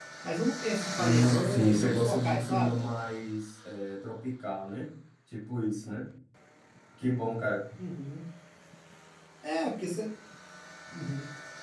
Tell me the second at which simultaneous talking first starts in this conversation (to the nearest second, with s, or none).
1 s